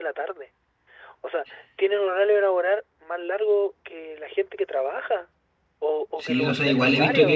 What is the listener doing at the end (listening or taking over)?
taking over